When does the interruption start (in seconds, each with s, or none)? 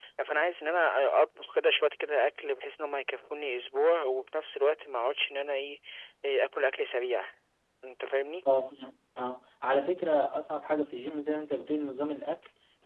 none